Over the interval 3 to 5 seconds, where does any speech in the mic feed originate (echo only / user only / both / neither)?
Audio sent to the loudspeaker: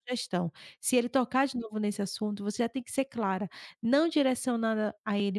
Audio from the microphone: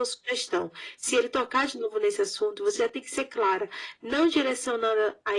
echo only